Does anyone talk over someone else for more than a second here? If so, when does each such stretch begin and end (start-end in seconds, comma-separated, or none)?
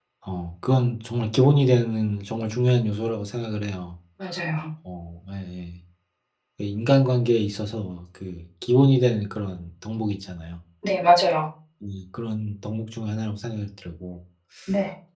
none